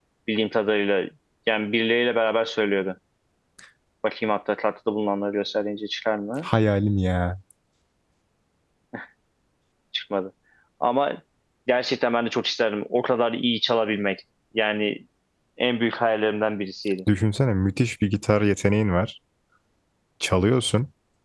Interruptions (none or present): none